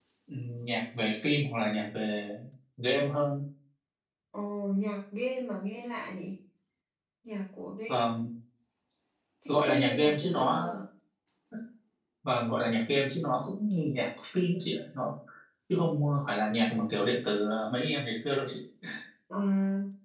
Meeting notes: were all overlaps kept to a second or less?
No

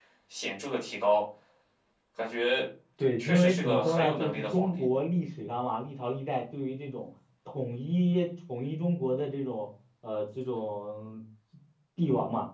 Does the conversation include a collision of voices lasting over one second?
Yes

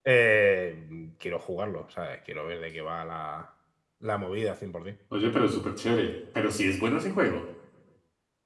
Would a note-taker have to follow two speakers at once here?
No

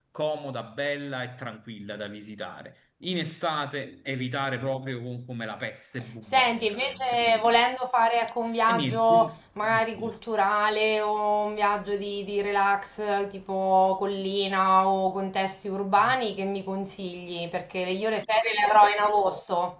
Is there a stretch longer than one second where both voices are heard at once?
Yes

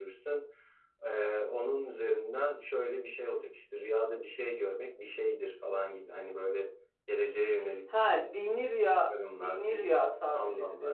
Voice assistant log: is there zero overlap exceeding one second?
No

